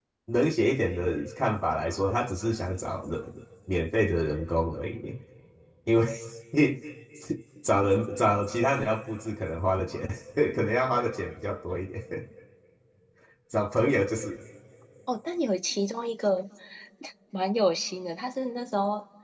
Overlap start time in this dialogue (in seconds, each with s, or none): none